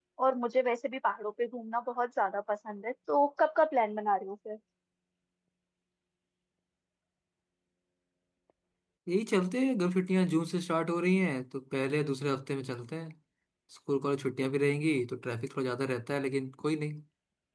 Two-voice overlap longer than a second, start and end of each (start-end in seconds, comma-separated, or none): none